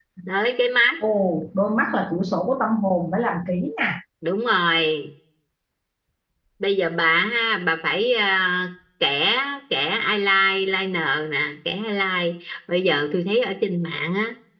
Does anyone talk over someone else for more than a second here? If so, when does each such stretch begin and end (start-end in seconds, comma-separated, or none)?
none